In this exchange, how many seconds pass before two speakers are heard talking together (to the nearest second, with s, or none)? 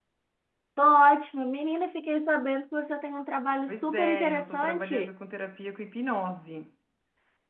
4 s